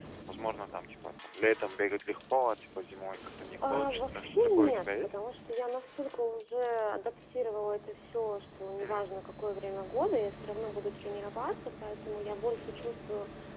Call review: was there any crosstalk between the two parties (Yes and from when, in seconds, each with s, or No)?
Yes, from 3.6 s